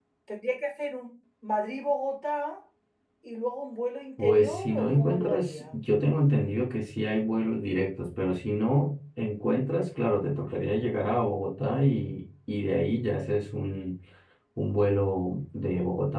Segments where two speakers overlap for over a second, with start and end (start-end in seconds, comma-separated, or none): 4.2-5.7